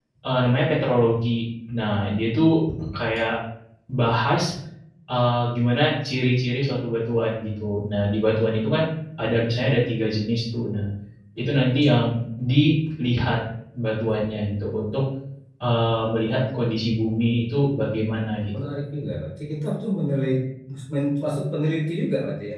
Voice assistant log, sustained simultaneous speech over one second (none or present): none